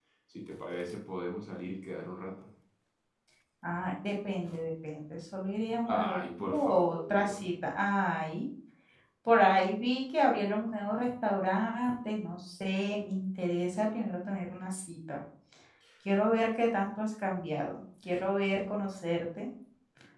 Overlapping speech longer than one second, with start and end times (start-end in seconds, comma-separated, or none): 6.0-7.4